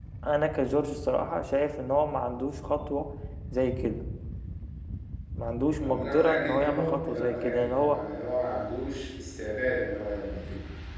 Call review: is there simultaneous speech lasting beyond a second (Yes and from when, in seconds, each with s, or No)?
Yes, from 5.8 s